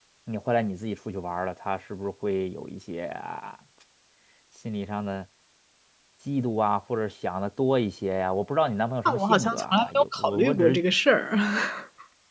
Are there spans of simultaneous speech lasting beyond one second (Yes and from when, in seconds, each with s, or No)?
Yes, from 9.0 s